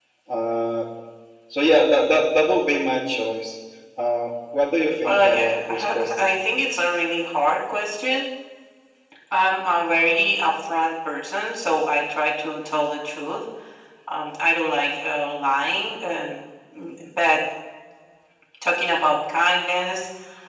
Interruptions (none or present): present